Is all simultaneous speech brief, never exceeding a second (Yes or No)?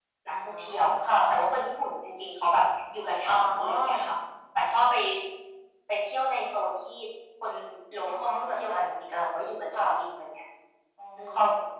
No